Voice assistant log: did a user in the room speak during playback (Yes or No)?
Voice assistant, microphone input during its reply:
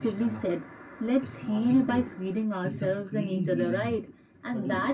Yes